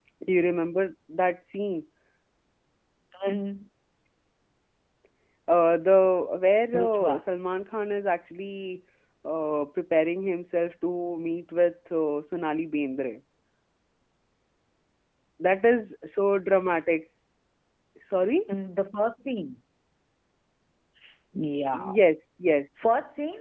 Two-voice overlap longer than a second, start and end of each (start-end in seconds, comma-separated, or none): none